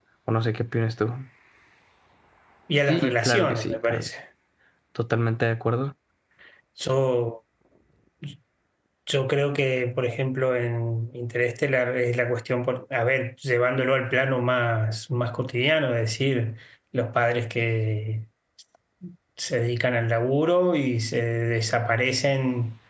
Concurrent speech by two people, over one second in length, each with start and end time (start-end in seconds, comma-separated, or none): 2.9-4.1